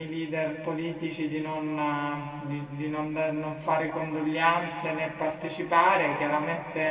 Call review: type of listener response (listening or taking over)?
listening